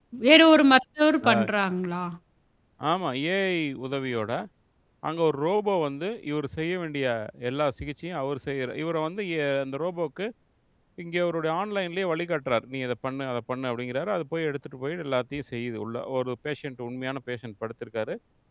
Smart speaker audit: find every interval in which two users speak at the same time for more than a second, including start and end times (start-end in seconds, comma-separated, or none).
none